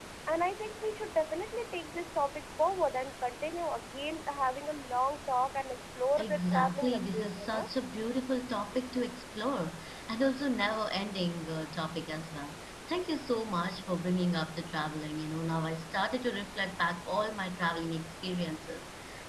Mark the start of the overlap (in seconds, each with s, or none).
6.2 s